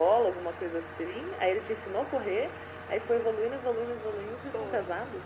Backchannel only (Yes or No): No